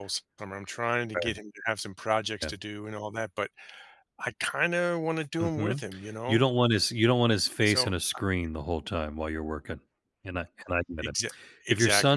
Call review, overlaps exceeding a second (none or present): none